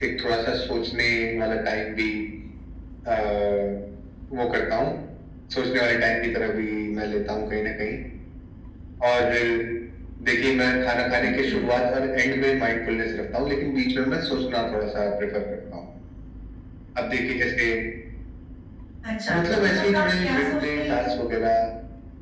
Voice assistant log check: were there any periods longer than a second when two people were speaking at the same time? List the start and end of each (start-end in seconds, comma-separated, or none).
19.3-21.0